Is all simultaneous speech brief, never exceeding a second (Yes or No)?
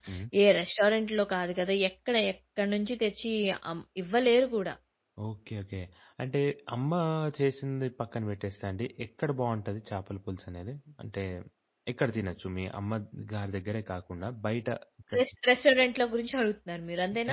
Yes